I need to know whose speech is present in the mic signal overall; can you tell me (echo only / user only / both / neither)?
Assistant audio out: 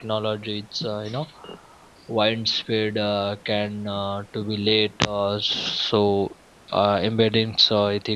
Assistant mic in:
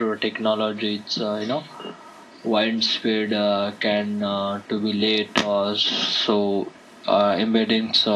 echo only